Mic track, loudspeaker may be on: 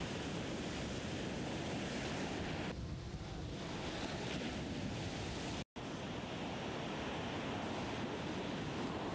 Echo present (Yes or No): No